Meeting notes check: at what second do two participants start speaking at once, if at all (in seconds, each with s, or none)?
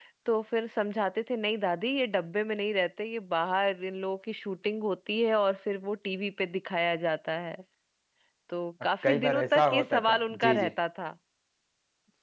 9.0 s